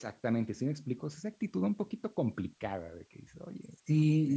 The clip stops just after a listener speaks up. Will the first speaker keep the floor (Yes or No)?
No